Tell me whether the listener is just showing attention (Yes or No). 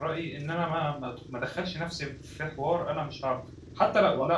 Yes